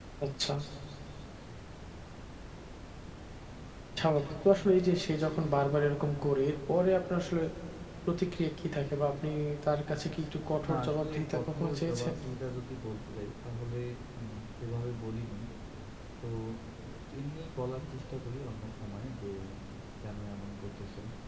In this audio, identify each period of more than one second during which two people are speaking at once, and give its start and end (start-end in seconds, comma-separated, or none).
10.7-12.1